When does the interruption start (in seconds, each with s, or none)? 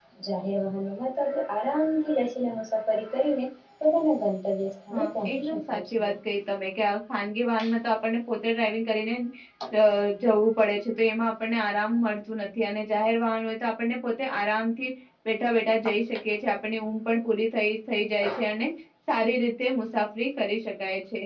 4.9 s